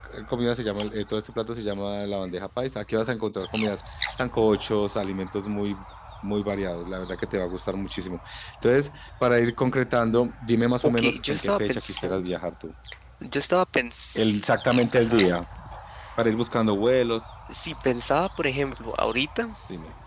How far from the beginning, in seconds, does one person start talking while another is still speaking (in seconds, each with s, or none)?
10.8 s